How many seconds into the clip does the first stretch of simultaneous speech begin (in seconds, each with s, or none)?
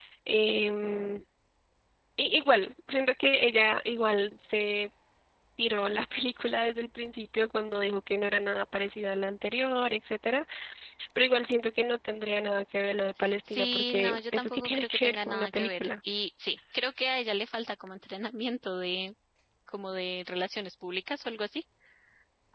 13.2 s